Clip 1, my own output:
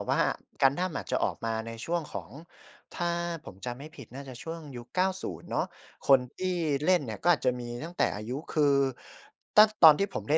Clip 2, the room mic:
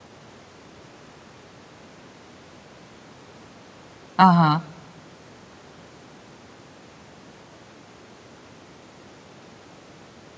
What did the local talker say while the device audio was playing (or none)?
อะฮะ